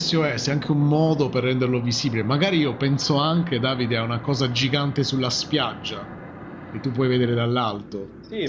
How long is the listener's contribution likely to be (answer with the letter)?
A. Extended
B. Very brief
A